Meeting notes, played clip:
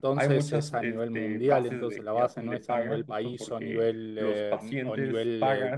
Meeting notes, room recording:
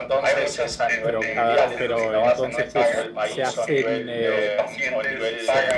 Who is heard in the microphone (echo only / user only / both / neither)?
both